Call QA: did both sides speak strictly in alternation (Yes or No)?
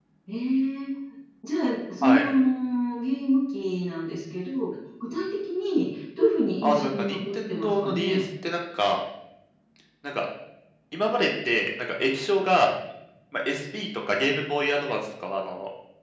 No